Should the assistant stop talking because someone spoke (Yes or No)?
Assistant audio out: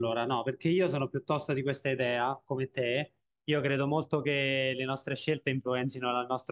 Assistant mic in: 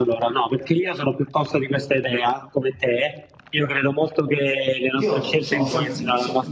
Yes